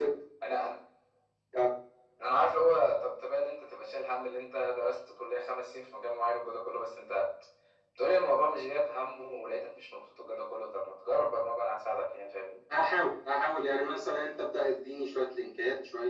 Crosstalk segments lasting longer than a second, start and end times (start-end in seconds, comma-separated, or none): none